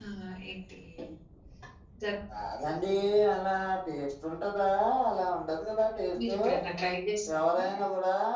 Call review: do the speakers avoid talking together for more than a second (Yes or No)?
Yes